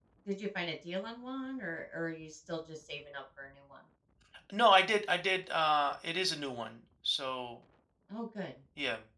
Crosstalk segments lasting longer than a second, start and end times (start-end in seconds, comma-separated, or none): none